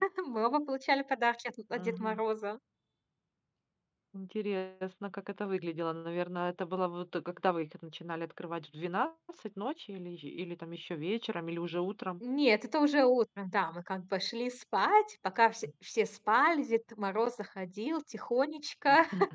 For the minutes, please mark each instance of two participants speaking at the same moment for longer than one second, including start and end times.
none

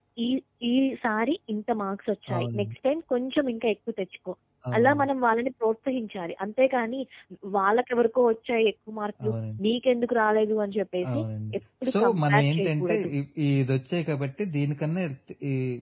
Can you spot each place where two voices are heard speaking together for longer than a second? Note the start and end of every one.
11.9-13.1

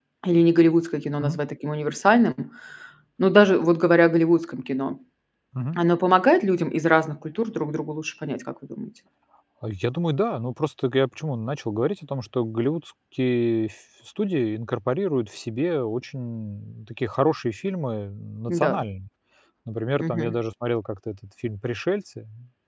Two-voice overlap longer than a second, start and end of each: none

